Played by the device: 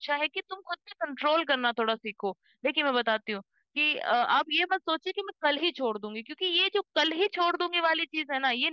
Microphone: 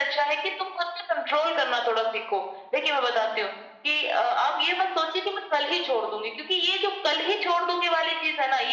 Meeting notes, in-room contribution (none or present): none